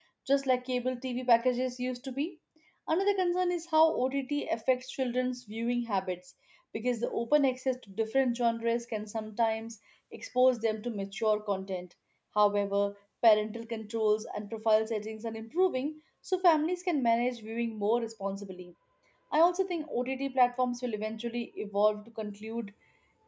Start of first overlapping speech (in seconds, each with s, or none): none